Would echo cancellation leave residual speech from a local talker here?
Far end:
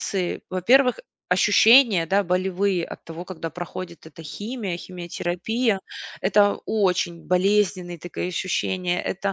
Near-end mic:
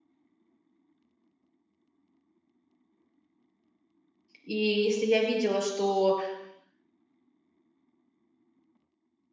Yes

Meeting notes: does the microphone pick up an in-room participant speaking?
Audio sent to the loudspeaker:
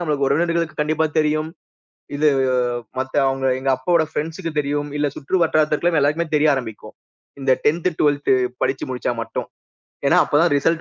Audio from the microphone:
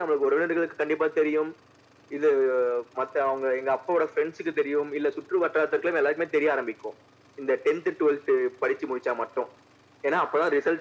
No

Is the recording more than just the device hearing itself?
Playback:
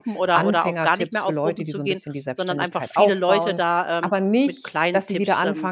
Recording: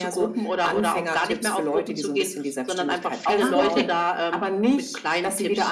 Yes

